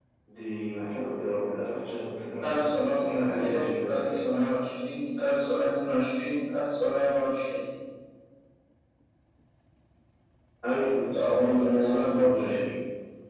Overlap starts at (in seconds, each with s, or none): 2.4 s